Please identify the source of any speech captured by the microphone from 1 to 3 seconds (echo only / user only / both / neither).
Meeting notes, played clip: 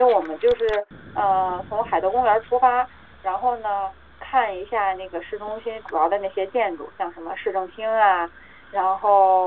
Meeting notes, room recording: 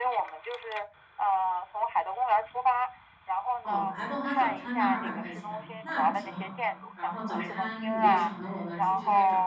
echo only